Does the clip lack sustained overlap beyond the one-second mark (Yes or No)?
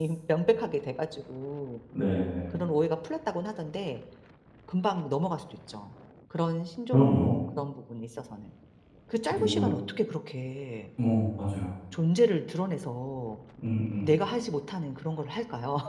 Yes